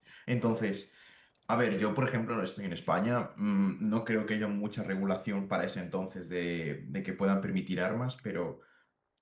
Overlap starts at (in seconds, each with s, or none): none